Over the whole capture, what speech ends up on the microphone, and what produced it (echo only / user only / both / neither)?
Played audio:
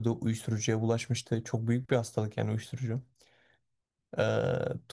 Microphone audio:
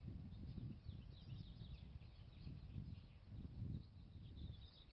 neither